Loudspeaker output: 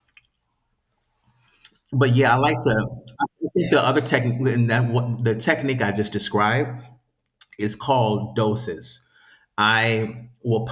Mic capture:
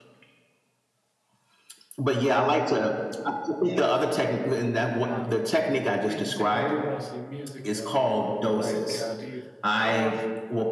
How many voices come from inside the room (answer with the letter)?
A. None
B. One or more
B